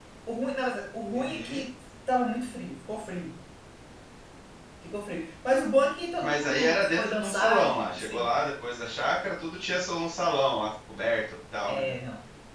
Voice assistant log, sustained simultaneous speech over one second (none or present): present